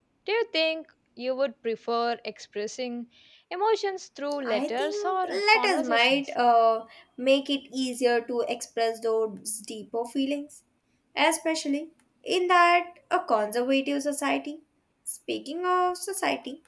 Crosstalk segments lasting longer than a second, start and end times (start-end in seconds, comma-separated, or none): 4.4-6.3